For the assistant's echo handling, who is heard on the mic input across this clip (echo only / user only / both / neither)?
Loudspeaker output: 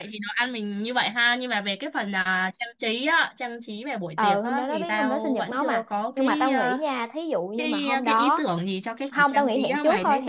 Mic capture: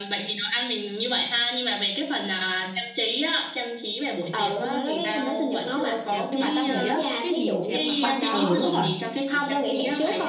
both